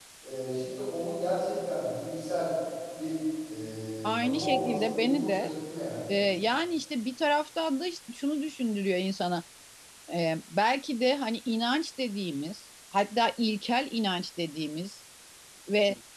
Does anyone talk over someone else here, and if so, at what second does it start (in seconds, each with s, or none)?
4.0 s